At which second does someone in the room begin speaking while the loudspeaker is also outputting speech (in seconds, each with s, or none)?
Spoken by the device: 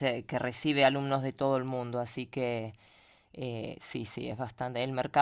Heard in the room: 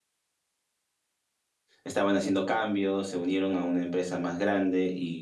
1.8 s